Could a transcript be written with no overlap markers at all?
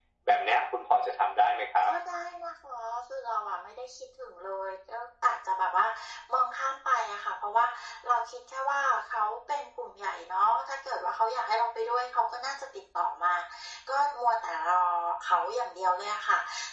Yes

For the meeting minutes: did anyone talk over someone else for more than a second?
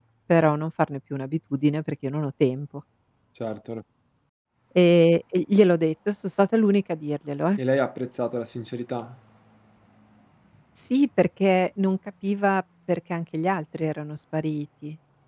No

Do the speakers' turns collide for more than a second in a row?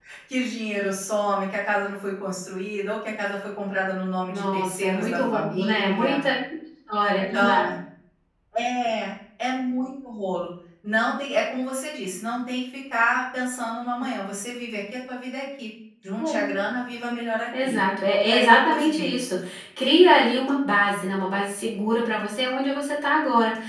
Yes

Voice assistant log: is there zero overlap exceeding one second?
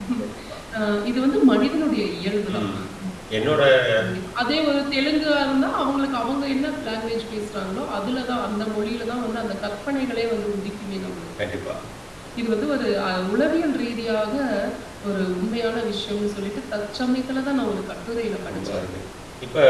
Yes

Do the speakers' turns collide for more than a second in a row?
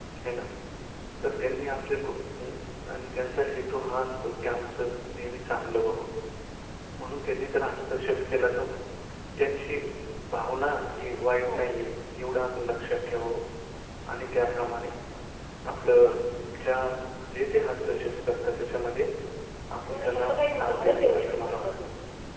Yes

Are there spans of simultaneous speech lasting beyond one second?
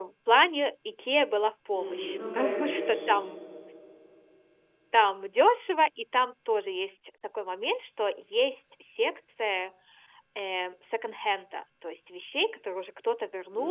Yes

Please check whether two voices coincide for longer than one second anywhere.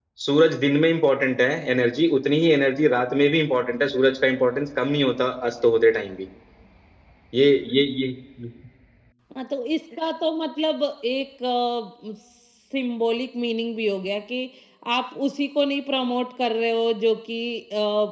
No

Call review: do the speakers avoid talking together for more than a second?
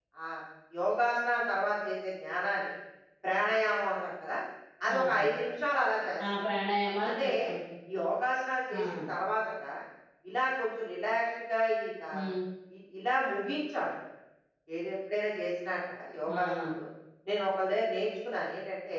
Yes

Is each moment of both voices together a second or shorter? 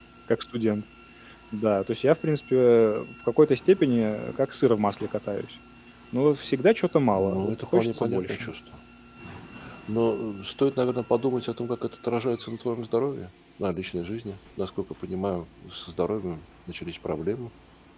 No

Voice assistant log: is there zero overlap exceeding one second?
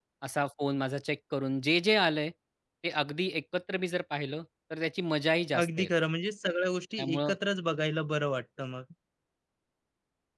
Yes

